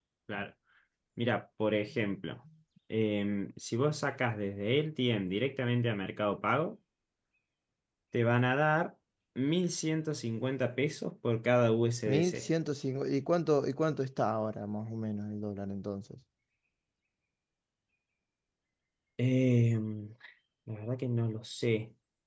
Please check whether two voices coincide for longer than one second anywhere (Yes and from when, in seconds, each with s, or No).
No